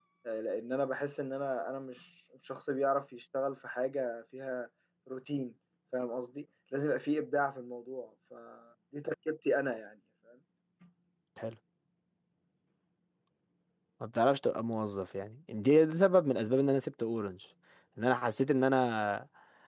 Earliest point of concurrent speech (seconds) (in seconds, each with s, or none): none